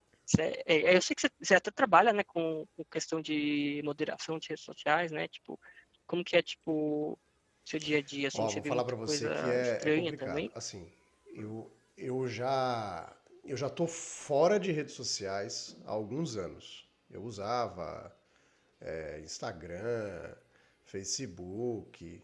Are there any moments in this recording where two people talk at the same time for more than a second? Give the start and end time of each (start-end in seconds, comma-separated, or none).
8.3-10.5